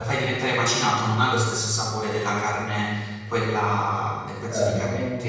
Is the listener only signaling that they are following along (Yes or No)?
No